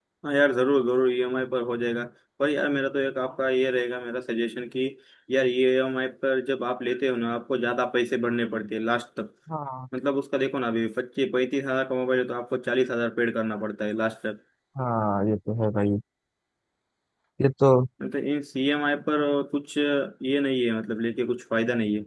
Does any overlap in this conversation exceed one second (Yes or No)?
No